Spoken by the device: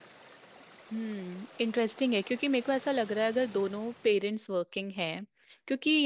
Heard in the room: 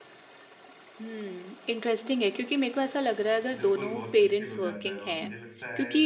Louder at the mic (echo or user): echo